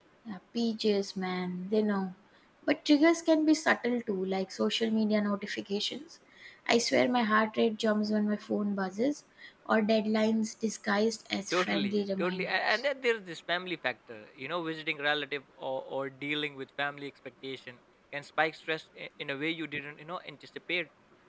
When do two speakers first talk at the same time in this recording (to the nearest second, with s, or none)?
12 s